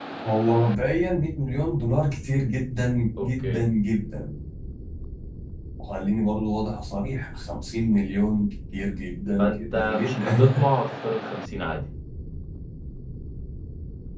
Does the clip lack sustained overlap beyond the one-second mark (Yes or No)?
No